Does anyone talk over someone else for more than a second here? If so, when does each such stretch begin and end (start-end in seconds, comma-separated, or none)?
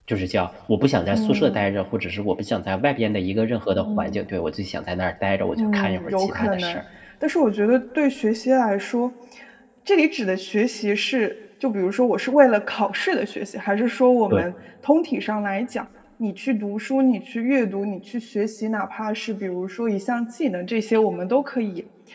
5.6-6.8